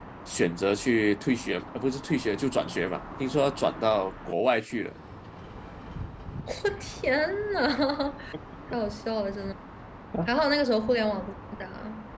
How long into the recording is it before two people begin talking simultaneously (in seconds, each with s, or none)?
none